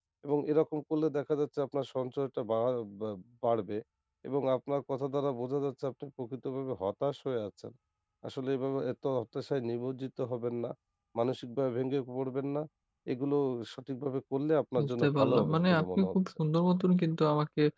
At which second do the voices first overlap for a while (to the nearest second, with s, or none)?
15 s